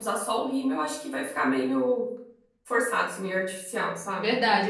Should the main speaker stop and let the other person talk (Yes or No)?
Yes